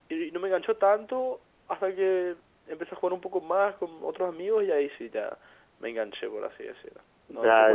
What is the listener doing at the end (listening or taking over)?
taking over